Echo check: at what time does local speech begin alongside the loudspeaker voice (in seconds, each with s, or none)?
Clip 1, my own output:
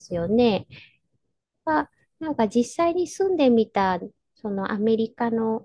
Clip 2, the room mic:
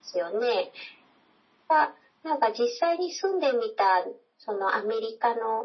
none